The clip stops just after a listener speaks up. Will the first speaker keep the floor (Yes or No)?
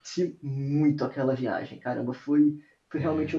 Yes